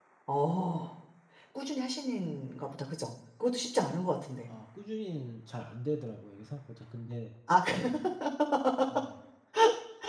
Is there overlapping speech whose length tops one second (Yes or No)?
No